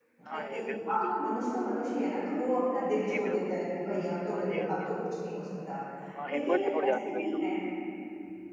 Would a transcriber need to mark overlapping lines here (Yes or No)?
Yes